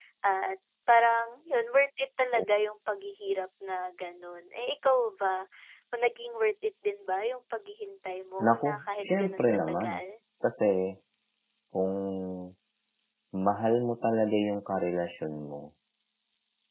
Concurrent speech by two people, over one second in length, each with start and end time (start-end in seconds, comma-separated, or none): 8.4-10.0